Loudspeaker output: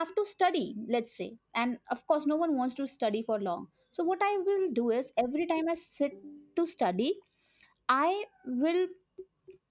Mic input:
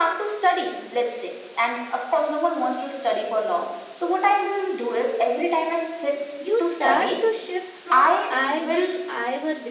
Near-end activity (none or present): present